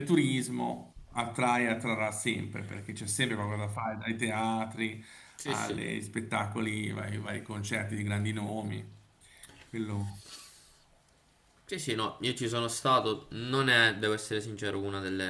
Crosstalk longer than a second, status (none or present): none